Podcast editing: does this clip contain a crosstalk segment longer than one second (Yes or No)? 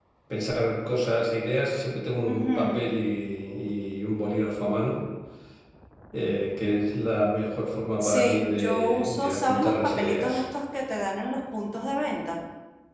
Yes